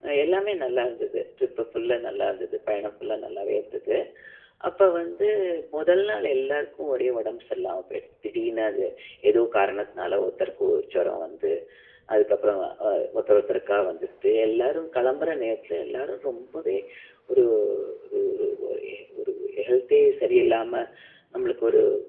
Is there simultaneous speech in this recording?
No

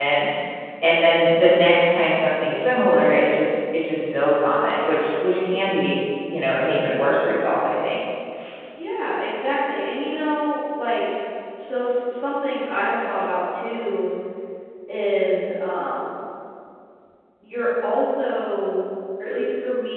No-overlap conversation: Yes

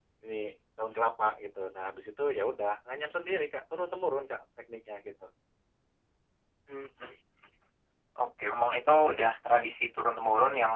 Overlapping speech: No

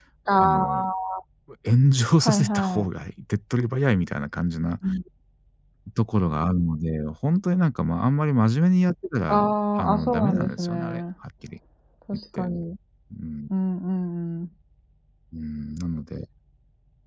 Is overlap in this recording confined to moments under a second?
No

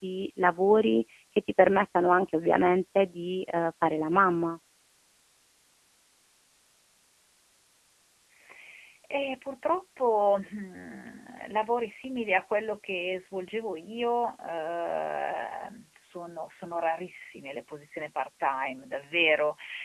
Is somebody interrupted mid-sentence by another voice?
No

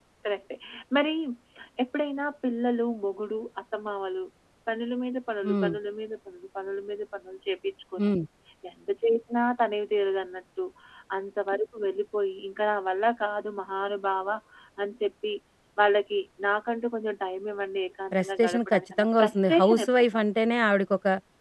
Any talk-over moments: Yes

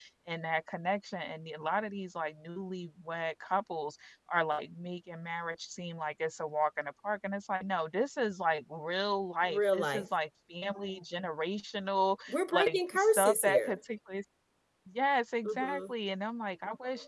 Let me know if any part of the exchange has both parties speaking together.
Yes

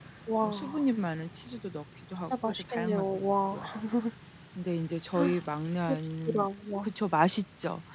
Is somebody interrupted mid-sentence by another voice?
Yes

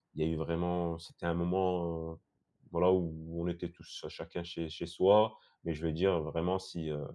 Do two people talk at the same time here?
No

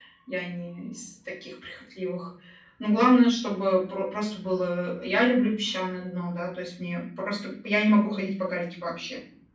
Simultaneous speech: No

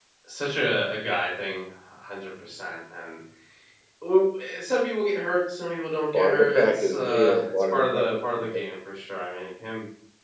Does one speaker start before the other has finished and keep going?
Yes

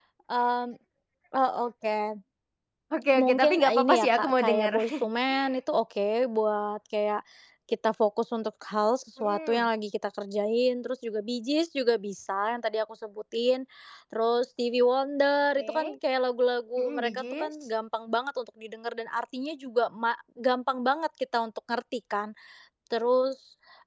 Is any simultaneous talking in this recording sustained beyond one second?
Yes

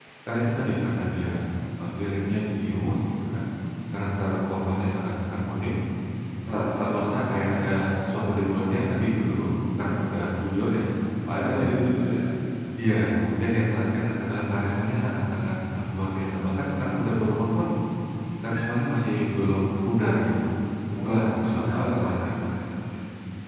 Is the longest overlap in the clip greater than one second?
Yes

